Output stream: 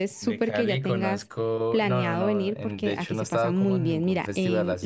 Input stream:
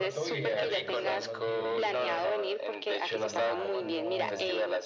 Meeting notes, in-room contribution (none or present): present